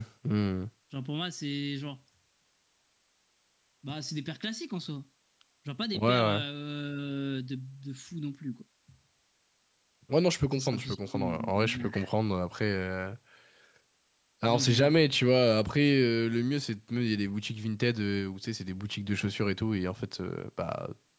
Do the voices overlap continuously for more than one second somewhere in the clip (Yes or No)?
Yes